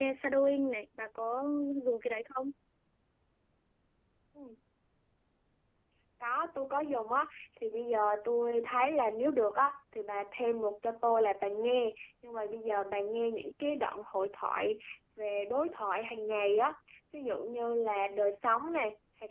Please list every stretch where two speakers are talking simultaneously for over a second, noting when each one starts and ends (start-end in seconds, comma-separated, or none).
none